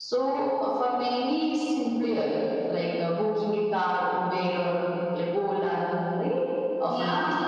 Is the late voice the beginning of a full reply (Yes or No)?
Yes